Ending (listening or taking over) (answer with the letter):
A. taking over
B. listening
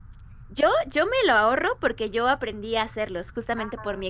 B